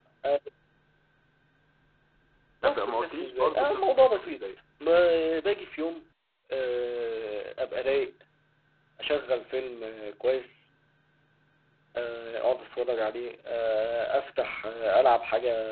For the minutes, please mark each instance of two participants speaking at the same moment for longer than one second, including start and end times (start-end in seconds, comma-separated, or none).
2.6-4.4